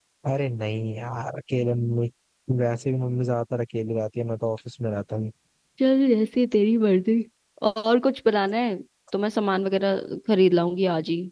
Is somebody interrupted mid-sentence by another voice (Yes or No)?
No